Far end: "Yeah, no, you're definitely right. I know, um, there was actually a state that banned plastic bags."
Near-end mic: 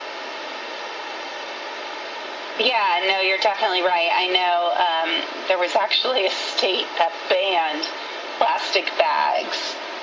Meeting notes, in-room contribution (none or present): none